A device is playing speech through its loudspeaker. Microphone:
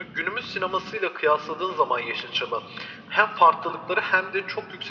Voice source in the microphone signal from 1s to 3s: echo only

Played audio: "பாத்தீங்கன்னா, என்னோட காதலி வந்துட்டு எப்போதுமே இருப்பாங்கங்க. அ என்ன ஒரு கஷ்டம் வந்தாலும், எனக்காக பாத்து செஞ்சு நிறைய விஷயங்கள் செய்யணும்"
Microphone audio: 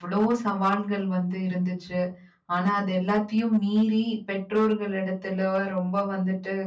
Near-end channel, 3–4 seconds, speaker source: user only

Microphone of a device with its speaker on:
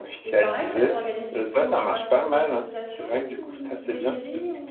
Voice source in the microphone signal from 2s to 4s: both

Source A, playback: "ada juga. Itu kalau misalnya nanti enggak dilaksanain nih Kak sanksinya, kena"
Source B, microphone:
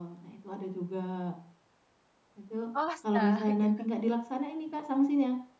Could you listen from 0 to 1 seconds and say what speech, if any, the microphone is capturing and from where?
echo only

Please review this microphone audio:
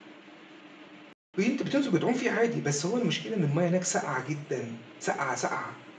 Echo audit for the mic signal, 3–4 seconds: user only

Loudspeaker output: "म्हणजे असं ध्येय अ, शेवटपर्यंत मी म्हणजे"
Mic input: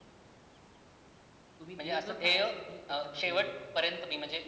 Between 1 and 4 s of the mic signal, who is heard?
both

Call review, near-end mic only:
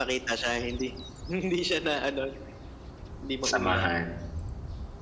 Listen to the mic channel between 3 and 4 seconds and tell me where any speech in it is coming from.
both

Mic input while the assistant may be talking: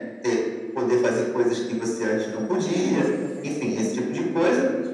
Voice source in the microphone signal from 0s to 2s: echo only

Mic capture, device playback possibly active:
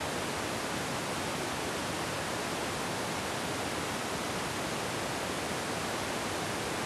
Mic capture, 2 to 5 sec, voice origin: neither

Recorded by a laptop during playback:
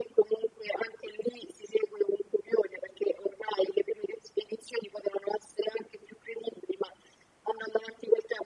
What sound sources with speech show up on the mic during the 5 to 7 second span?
echo only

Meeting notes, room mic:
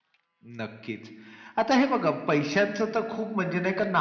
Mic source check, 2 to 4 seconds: echo only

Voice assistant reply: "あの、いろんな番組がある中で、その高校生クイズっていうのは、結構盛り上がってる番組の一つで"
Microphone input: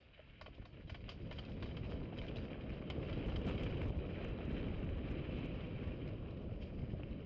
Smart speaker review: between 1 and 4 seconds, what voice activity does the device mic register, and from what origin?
neither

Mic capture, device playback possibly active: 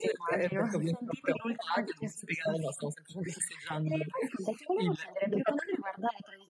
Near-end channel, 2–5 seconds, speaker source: echo only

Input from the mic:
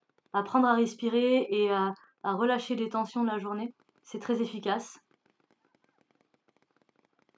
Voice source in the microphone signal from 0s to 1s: user only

